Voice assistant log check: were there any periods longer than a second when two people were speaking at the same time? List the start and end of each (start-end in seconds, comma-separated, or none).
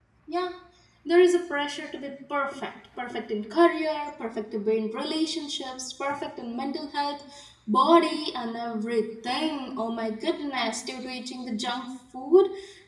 none